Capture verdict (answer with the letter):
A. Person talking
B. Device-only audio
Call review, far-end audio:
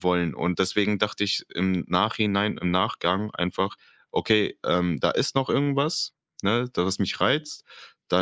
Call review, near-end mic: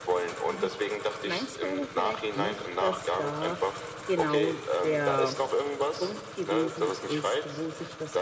A